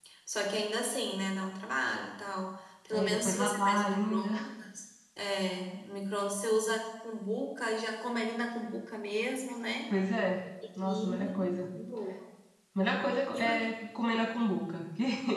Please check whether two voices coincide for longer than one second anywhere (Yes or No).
Yes